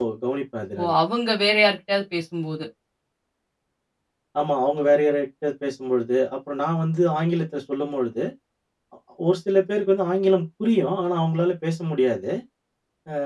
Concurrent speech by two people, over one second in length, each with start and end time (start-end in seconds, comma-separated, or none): none